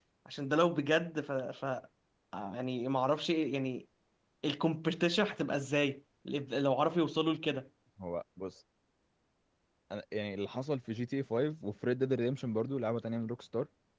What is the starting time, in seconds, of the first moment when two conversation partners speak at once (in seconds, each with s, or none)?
none